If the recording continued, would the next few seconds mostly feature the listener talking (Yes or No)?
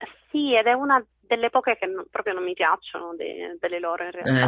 Yes